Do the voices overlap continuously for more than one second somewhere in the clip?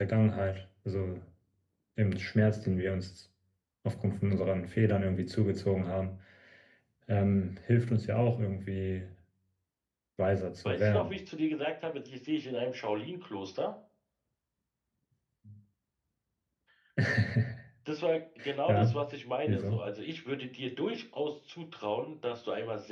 No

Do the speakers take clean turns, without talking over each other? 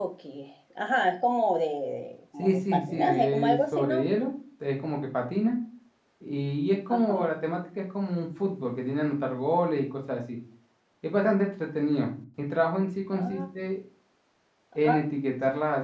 No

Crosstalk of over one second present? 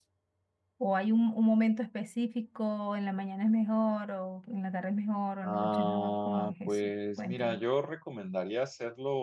Yes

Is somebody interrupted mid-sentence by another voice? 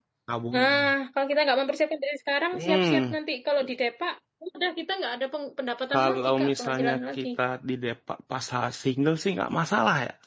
Yes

